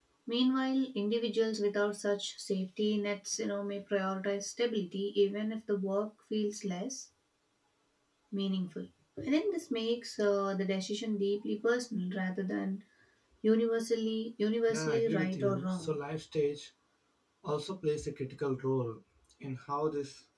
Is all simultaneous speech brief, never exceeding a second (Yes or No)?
No